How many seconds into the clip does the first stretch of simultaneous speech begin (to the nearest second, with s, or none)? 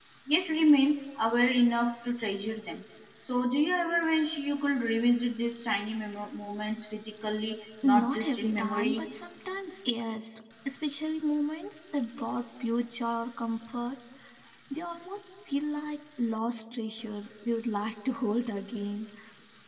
8 s